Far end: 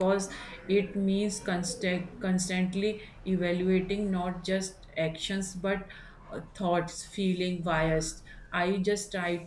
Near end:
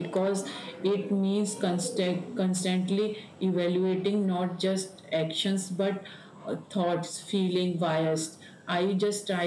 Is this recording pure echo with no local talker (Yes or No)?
Yes